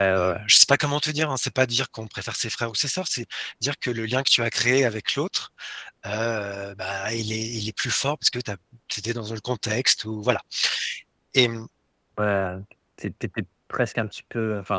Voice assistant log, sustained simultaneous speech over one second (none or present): none